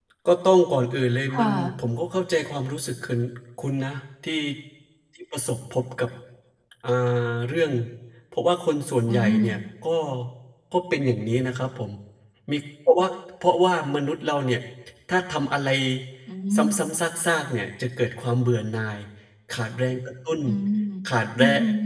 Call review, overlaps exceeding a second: none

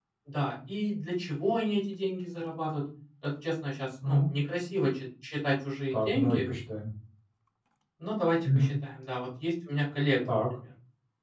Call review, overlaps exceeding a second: none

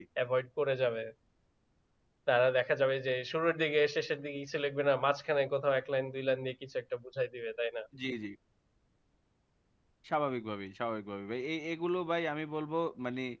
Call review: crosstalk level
none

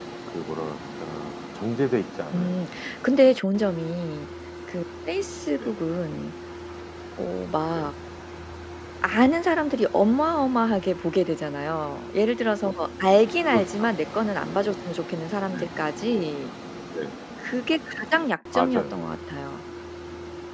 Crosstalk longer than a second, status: none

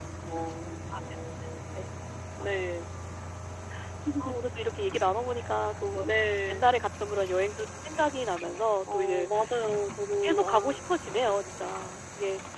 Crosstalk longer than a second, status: none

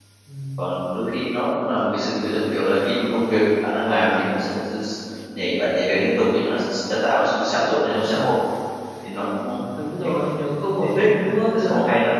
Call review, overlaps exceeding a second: none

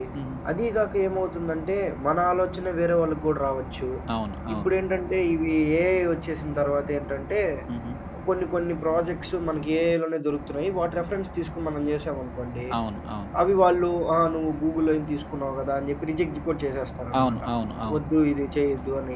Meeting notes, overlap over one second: none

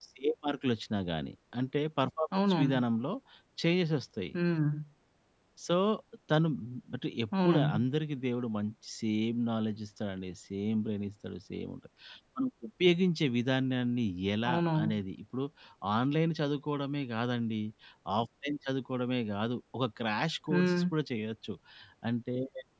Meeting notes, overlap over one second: none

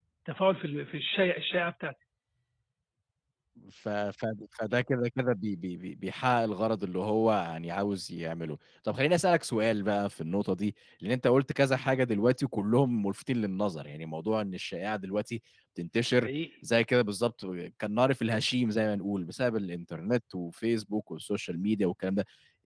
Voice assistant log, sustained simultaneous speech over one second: none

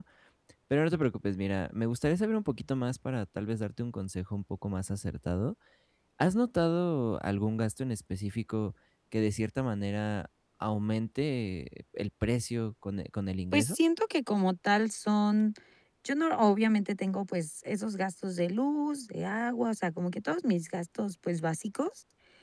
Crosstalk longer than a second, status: none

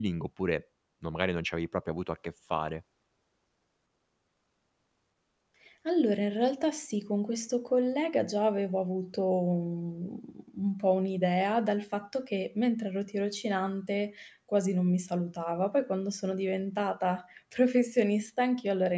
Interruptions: none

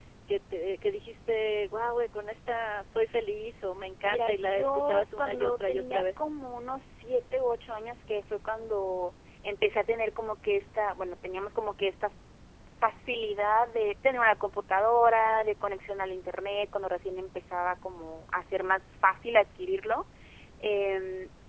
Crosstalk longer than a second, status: present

